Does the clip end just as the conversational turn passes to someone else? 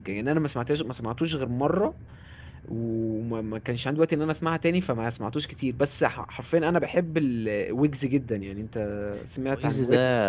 Yes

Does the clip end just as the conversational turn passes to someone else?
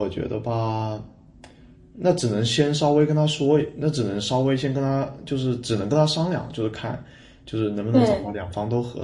No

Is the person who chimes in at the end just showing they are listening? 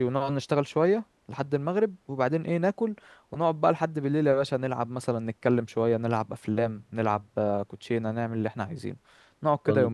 No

